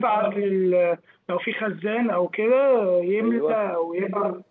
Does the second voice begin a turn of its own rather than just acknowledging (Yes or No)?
No